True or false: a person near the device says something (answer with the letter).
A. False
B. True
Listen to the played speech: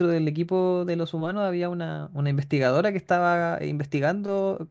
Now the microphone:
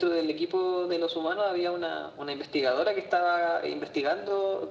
A